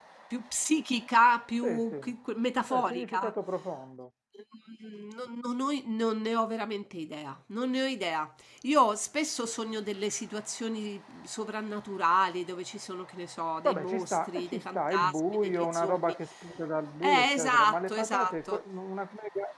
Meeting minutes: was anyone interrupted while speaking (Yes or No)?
Yes